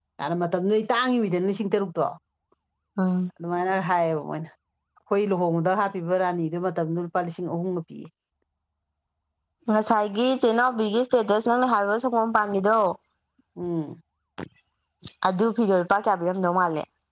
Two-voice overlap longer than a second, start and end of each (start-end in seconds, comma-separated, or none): none